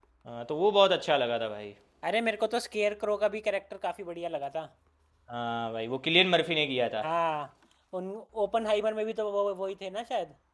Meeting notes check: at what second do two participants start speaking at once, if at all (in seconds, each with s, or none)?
none